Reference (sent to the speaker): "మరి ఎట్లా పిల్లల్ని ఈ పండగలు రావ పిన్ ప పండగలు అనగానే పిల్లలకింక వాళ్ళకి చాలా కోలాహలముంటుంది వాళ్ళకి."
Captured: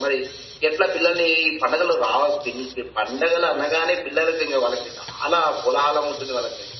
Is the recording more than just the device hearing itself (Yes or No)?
No